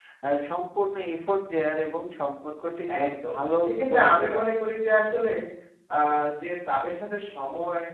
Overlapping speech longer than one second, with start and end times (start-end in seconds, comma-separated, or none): 3.0-4.4